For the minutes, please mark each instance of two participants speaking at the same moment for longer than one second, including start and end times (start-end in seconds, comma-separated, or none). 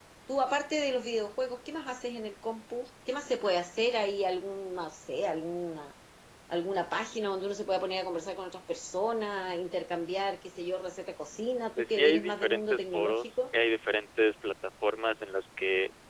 11.8-13.4